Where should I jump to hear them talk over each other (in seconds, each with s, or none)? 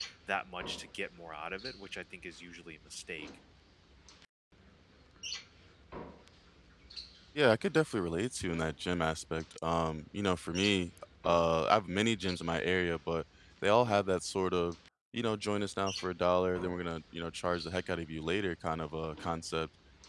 none